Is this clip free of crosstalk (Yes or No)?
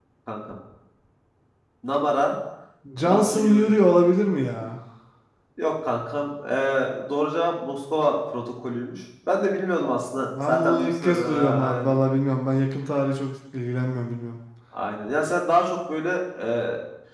No